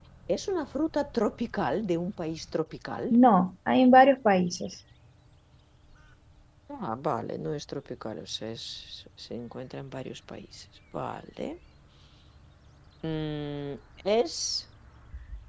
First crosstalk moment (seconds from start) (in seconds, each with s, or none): none